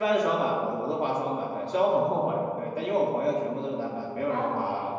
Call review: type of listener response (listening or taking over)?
listening